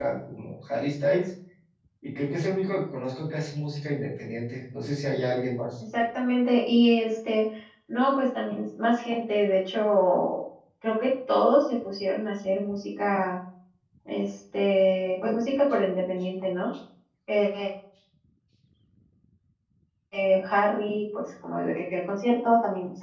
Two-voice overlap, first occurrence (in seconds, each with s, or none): none